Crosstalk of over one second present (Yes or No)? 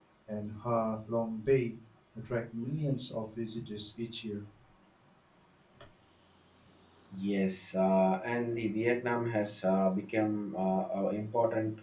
No